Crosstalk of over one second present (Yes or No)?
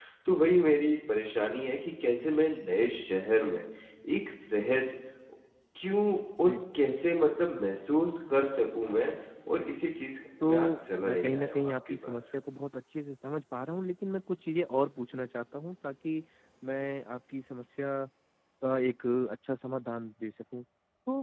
Yes